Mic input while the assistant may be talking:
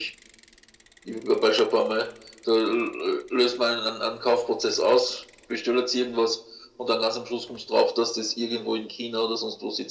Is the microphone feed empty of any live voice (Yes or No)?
Yes